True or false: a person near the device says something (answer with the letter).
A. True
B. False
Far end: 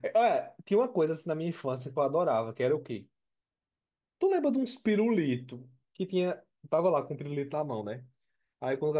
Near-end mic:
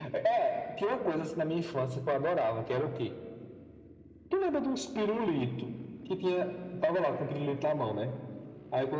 B